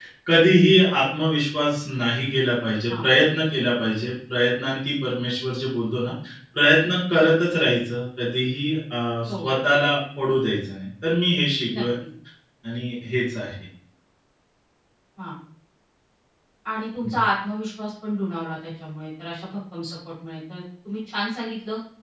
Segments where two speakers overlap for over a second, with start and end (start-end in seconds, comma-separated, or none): none